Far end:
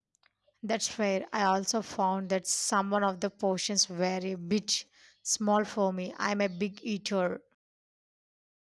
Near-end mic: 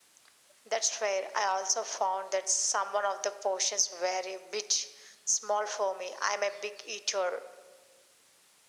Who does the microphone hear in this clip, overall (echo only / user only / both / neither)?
echo only